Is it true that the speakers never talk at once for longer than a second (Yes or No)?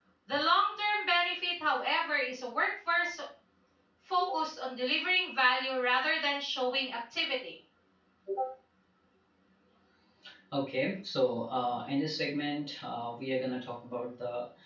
Yes